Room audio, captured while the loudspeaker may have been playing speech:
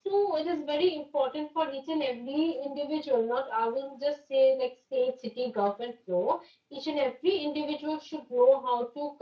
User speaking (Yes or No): Yes